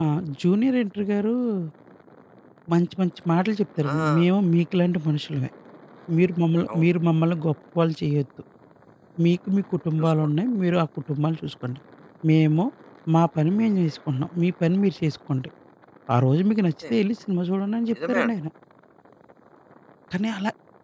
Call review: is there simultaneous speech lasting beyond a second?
No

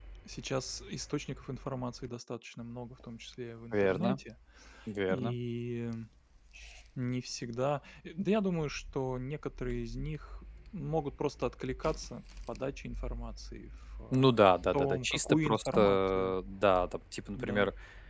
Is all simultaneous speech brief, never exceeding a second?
No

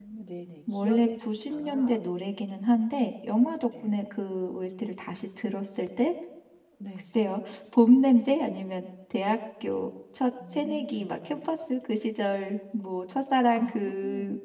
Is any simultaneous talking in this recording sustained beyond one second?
Yes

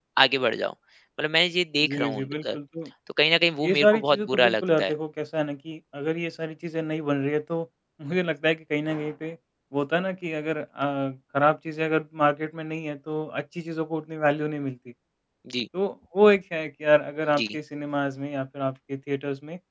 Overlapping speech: Yes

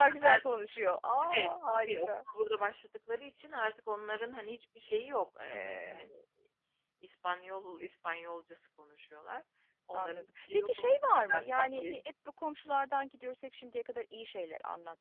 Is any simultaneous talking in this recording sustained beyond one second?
Yes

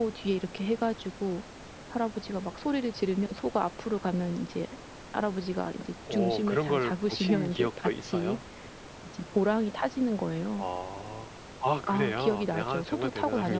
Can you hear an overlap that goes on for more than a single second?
Yes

